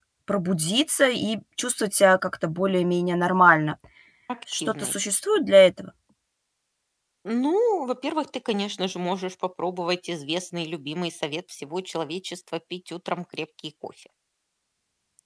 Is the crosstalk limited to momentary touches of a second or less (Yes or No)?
Yes